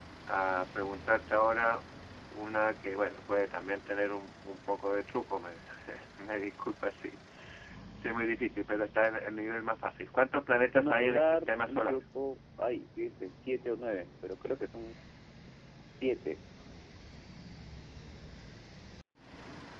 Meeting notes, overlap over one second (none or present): present